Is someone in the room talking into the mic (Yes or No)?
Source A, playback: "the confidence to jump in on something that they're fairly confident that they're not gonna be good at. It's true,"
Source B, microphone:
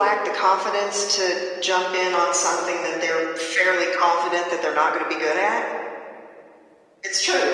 No